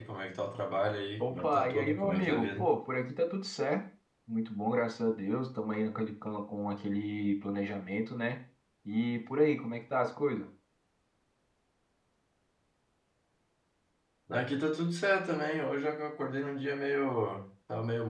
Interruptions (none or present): present